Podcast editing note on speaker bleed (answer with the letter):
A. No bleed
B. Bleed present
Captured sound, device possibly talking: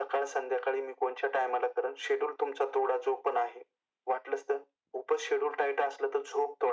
B